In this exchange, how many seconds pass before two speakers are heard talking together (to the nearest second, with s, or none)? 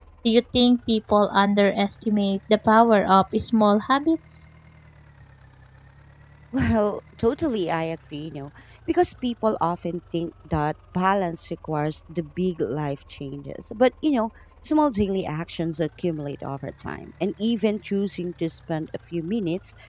none